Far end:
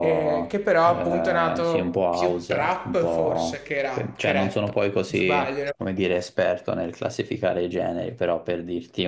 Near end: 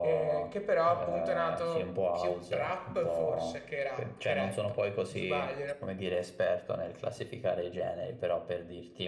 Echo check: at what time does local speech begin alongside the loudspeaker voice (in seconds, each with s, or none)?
none